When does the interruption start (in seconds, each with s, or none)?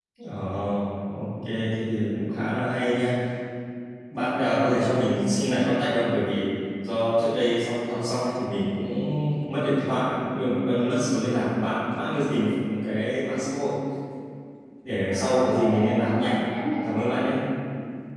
15.1 s